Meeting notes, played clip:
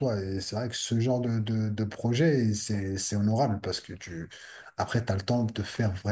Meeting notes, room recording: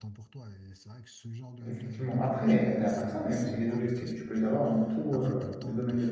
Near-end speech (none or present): present